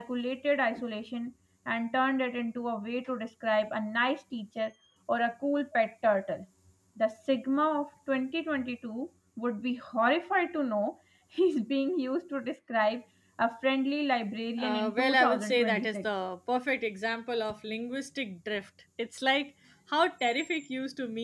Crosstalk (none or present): present